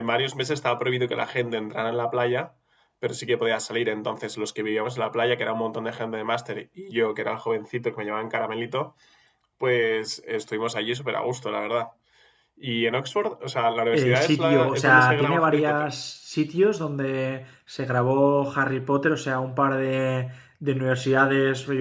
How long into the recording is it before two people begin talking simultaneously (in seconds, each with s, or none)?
13.9 s